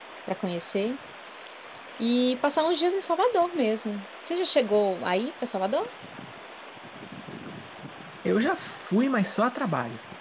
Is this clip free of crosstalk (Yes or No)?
Yes